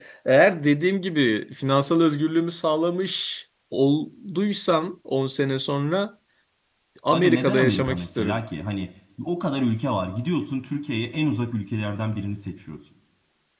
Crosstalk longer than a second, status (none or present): present